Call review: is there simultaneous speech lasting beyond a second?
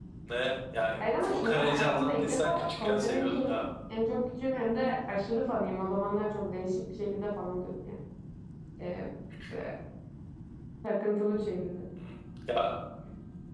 Yes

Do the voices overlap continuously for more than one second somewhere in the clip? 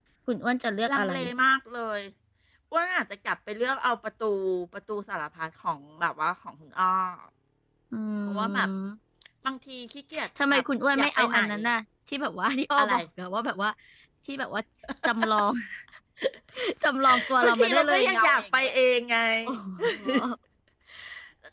Yes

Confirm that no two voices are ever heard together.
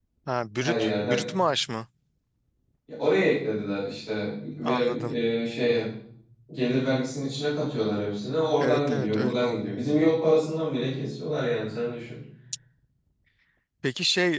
No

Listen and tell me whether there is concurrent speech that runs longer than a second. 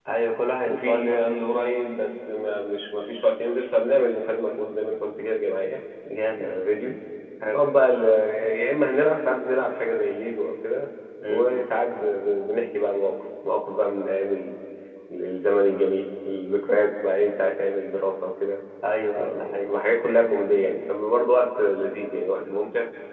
No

